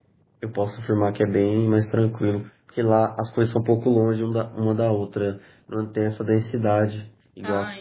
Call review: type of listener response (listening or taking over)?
taking over